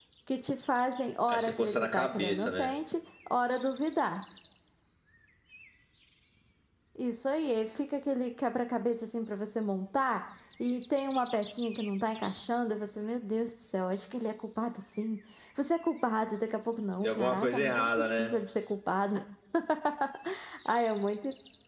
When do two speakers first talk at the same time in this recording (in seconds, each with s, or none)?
1.3 s